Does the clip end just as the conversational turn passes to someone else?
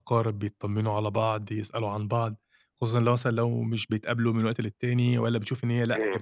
No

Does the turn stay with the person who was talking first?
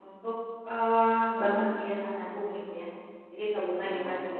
Yes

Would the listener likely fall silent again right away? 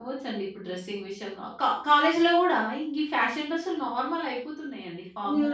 No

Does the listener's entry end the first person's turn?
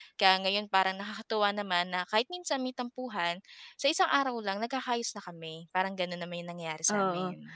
Yes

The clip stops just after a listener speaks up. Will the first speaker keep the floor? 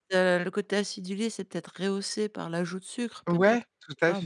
No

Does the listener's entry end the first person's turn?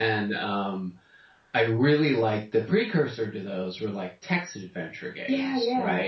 No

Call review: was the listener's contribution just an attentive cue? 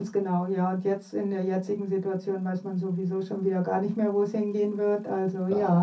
No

